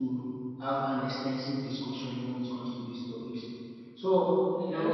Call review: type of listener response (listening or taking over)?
listening